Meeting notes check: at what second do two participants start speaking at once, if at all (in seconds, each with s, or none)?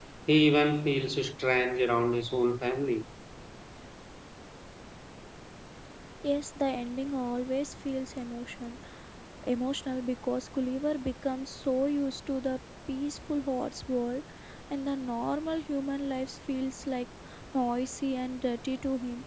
none